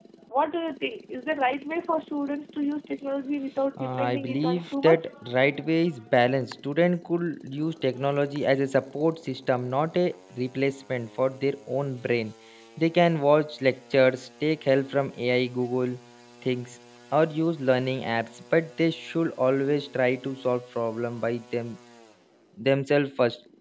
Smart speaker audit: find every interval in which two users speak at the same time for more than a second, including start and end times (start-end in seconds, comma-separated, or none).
3.8-5.1